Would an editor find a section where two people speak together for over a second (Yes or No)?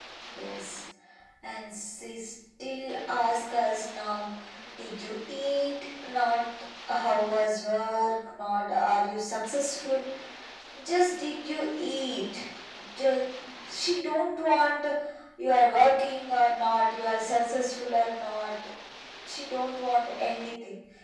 No